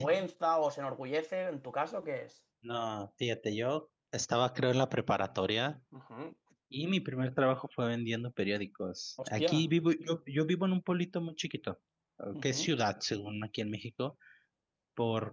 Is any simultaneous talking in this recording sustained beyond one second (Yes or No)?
No